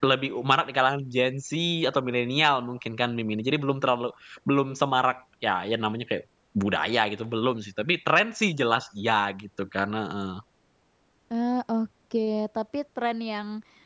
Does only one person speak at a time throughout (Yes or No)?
Yes